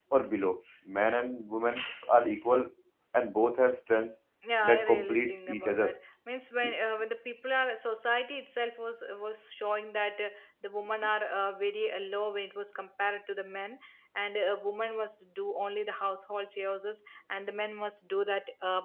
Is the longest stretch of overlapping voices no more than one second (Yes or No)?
No